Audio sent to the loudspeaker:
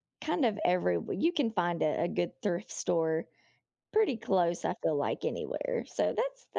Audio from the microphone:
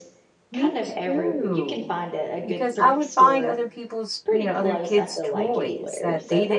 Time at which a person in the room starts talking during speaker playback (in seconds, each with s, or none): 0.5 s